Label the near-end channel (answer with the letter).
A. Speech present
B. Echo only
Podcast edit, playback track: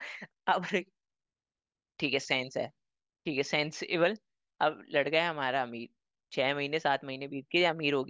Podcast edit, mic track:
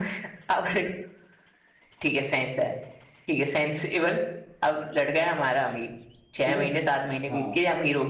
A